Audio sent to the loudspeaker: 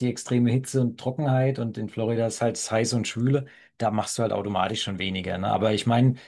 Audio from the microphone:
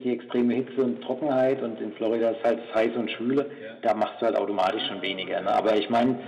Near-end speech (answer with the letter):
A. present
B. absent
A